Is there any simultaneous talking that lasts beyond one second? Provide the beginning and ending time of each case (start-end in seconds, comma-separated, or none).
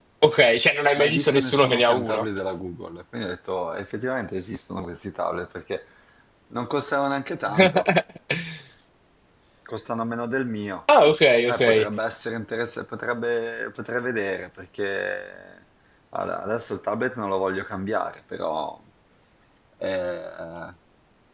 1.0-2.2